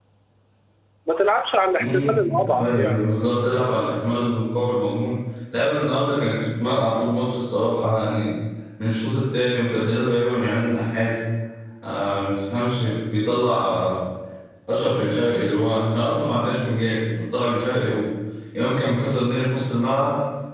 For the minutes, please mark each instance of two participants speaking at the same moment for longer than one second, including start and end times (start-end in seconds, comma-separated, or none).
1.8-3.0